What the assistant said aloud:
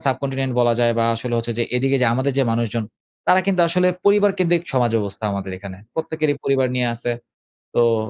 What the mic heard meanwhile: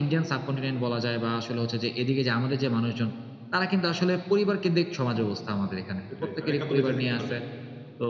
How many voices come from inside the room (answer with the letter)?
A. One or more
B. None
A